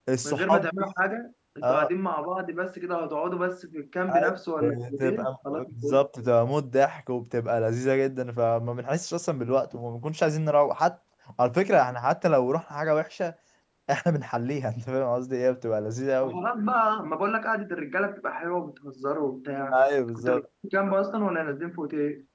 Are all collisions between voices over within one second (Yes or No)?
No